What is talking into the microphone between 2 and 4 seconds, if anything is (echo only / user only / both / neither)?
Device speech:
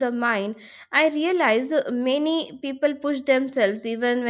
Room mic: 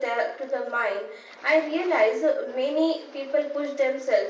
echo only